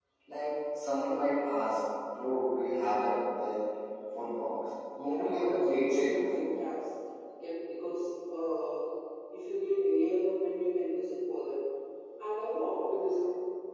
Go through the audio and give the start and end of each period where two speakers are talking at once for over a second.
5.0-6.4

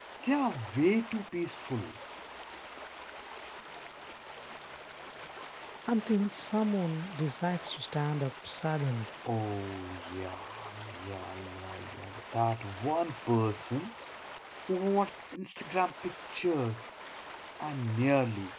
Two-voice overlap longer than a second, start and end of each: none

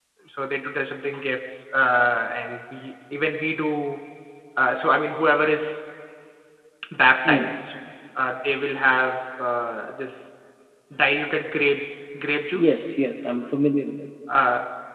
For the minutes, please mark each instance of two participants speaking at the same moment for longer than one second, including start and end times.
none

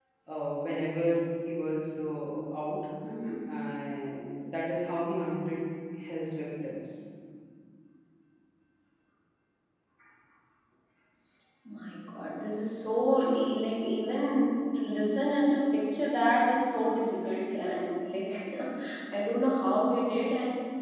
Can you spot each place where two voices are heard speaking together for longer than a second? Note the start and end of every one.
none

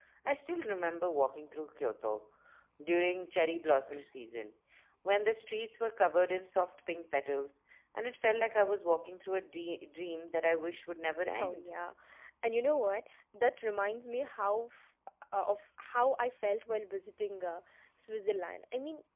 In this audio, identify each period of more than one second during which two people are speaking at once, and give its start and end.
none

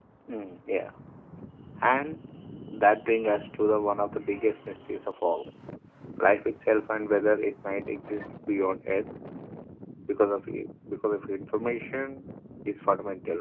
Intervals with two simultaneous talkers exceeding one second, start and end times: none

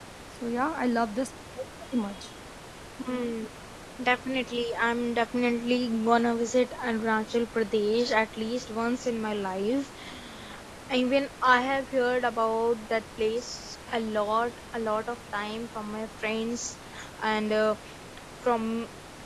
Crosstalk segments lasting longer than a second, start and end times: none

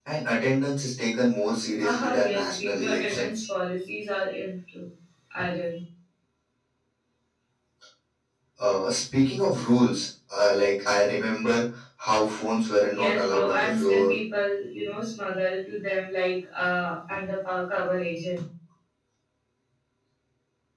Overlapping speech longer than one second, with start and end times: 1.8-3.4, 12.9-14.1

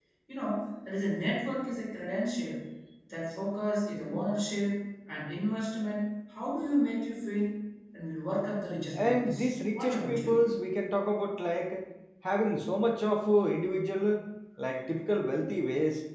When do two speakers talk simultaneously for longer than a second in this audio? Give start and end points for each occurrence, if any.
8.9-10.3

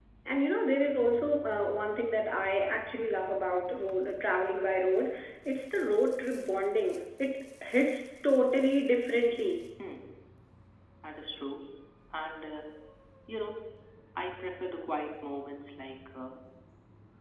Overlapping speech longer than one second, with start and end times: none

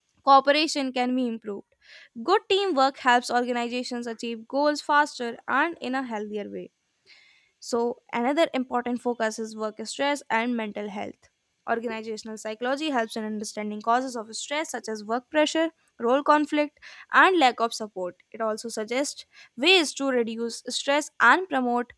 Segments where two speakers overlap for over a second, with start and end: none

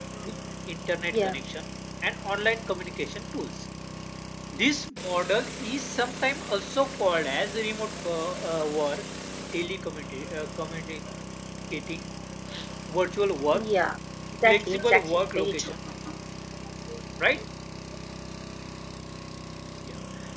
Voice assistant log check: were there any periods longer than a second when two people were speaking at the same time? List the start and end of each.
14.4-15.8

